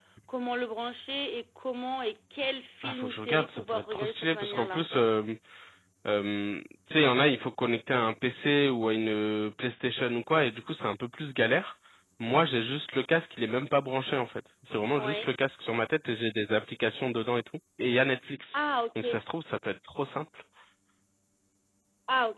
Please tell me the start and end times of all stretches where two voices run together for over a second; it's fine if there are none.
2.8-4.8

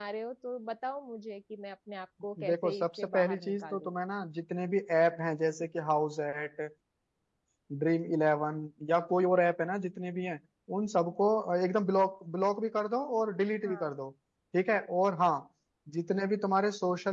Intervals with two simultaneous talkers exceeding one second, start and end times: 2.5-3.9

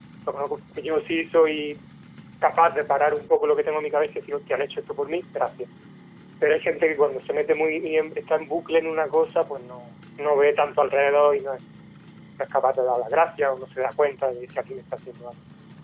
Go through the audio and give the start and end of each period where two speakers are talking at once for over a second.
none

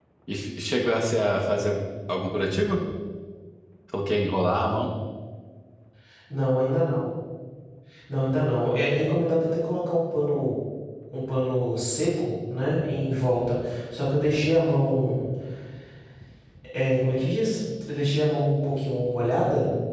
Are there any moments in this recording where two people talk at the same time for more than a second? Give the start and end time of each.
none

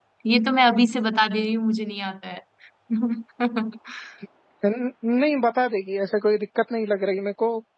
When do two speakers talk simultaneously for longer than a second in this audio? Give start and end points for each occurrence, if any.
none

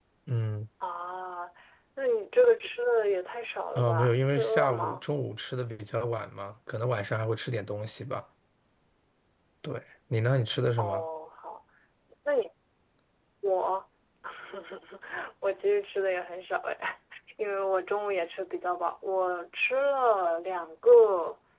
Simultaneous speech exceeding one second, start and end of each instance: 3.8-5.1

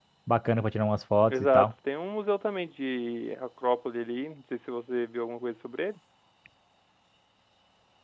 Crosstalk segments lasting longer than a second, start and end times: none

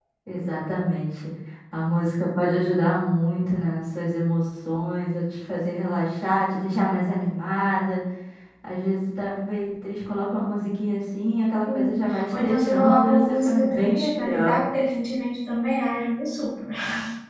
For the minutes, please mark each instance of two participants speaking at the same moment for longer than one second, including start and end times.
11.7-14.6

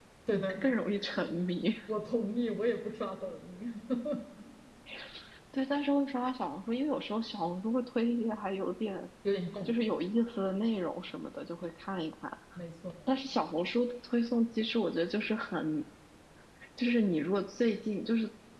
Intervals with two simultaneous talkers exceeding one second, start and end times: none

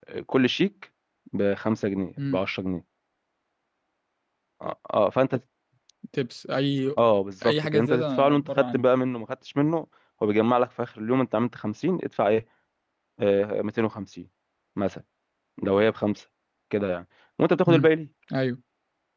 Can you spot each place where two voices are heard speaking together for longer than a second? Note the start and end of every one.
7.4-8.8

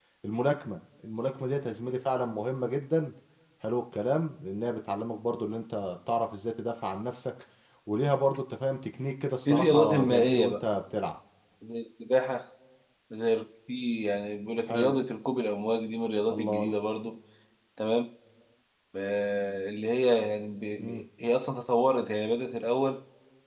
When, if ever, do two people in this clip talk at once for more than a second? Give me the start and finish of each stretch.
9.4-10.7

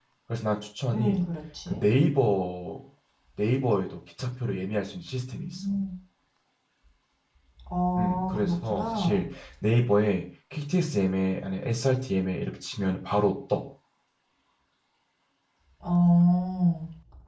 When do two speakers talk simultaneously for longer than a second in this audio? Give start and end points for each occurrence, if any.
8.0-9.2

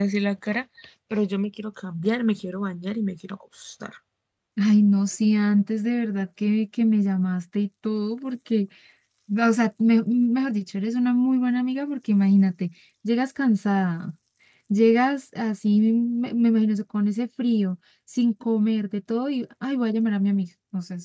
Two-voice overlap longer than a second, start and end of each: none

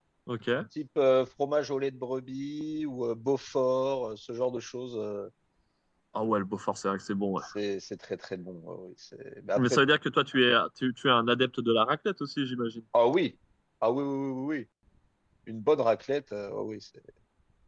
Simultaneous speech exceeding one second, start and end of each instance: none

